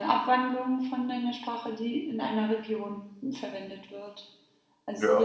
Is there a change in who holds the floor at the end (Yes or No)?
Yes